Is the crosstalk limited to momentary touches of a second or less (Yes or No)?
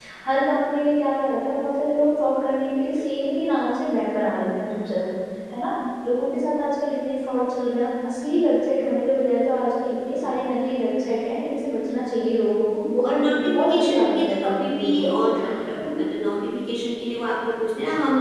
No